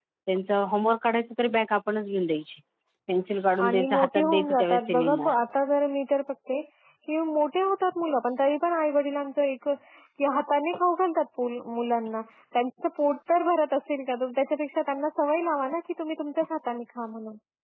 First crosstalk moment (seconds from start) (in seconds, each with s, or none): 3.6 s